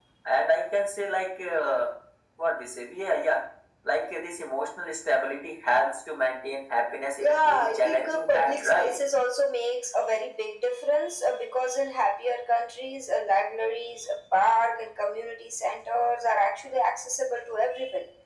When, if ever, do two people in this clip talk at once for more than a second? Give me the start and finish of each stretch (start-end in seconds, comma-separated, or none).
7.2-8.9